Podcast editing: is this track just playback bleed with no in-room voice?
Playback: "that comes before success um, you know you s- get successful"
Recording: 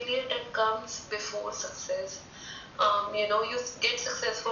Yes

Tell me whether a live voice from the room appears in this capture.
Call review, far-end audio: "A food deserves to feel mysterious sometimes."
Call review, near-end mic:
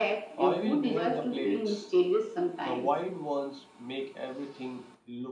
Yes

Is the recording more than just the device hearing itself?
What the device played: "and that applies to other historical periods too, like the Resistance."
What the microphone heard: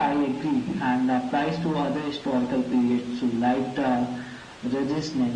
No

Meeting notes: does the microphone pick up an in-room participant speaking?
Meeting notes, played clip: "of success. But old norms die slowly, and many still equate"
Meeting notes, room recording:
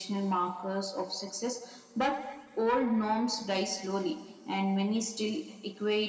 No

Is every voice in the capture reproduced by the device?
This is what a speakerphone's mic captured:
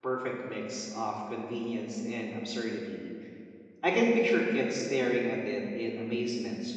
No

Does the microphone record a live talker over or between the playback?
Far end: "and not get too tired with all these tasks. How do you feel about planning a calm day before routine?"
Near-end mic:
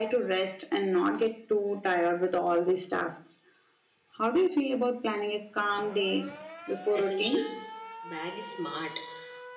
Yes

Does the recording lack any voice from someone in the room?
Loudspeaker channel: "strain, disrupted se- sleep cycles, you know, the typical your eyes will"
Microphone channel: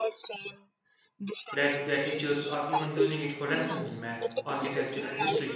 No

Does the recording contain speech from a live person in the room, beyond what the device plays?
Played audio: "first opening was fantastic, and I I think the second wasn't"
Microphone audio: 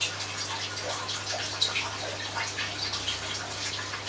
No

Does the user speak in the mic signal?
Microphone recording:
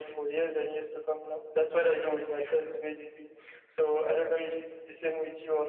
No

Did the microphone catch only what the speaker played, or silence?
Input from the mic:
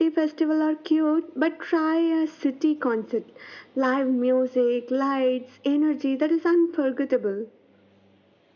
Yes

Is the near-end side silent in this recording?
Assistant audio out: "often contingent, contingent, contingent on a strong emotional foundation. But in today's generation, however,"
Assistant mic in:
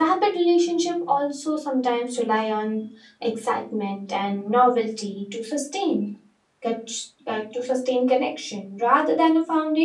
No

